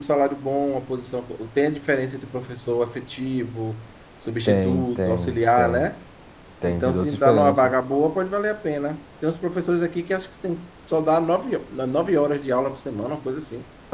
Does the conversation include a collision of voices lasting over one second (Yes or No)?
Yes